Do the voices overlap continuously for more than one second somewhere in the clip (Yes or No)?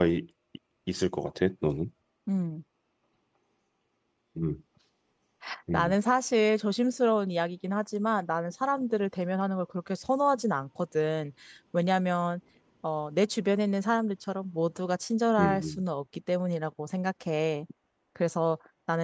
No